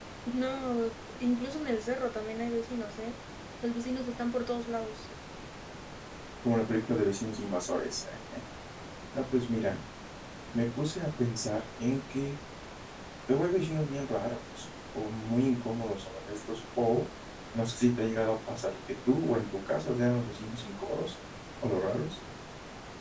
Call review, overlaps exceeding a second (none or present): none